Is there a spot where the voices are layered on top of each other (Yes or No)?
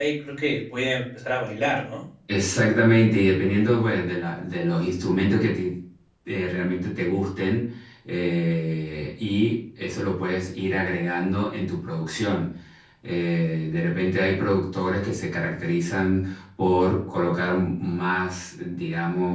No